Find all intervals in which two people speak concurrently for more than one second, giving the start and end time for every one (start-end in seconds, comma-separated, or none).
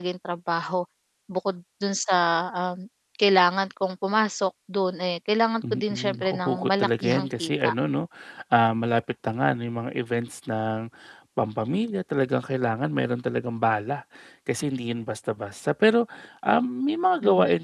5.7-7.7